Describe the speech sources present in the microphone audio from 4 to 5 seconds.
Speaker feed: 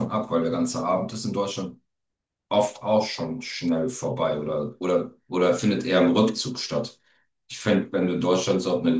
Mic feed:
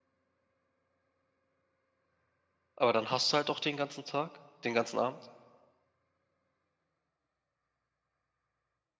user only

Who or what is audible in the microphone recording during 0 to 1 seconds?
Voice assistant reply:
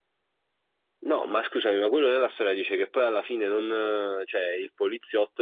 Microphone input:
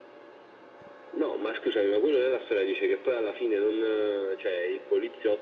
neither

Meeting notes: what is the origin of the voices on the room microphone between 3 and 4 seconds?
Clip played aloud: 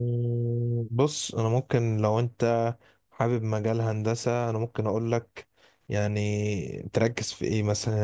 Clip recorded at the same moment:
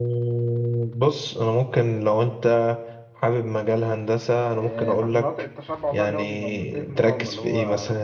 echo only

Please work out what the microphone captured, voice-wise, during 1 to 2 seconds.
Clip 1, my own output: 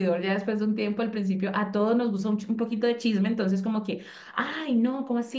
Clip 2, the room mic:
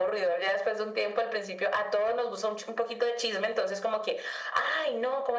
echo only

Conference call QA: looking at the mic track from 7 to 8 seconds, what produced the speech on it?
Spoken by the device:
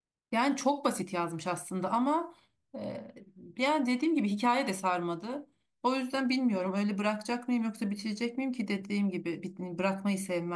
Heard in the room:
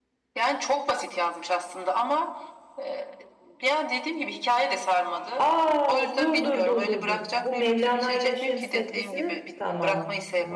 both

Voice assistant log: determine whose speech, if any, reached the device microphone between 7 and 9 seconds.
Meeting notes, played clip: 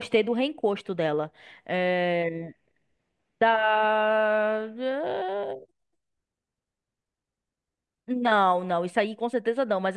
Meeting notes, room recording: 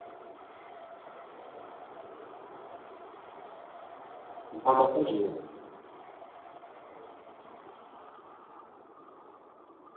neither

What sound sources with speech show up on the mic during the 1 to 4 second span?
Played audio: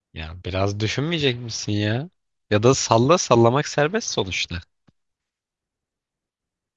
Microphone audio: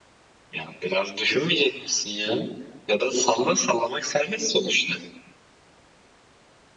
echo only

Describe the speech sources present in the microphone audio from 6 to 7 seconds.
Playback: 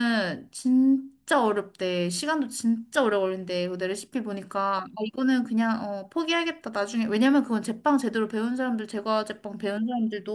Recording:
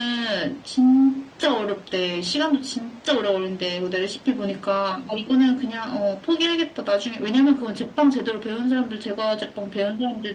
echo only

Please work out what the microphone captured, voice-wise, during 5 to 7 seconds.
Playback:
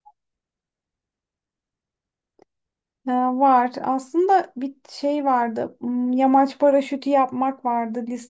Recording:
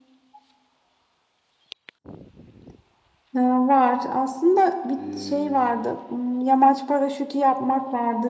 both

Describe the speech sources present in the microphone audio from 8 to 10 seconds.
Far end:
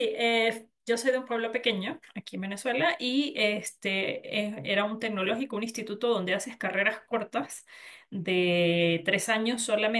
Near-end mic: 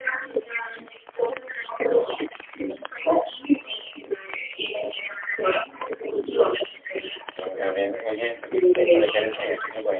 both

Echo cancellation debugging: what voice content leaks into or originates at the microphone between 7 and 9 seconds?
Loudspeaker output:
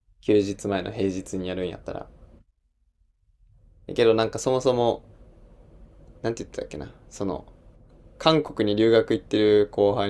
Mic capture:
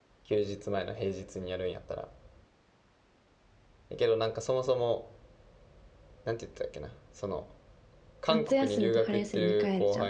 both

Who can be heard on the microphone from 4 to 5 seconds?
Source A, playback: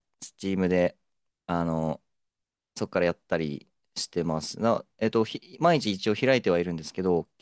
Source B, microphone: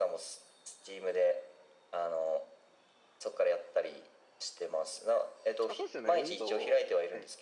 echo only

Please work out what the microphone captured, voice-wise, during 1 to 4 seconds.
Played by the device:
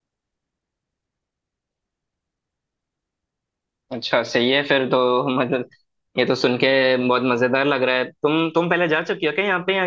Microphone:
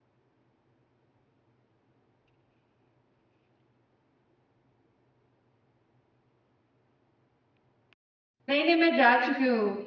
neither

